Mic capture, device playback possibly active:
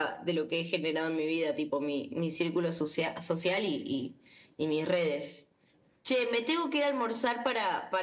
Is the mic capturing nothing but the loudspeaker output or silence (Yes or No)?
Yes